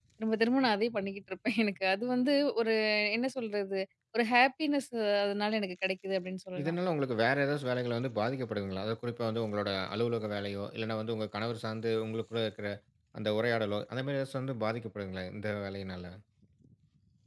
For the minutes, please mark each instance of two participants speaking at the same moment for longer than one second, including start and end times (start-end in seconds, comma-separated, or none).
none